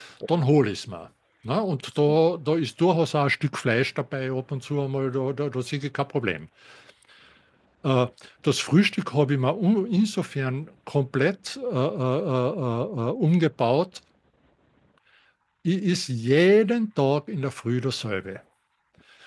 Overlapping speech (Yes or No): No